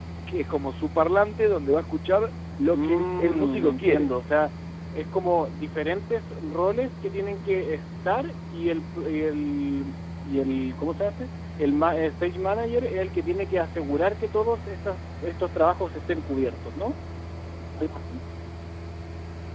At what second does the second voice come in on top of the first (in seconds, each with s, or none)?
2.7 s